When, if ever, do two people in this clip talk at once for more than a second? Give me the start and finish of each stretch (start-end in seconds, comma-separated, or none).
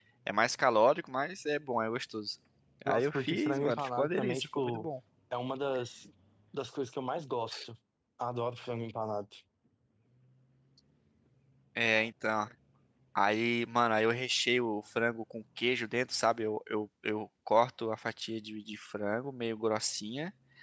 2.9-4.9